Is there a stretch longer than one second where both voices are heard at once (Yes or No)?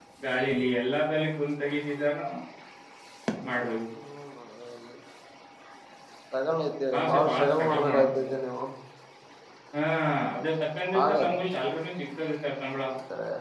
Yes